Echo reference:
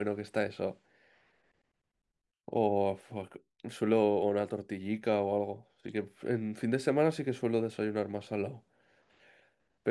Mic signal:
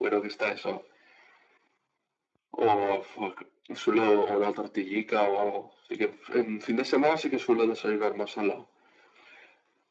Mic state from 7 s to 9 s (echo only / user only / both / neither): echo only